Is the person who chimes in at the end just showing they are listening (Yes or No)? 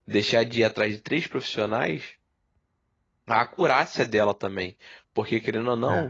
Yes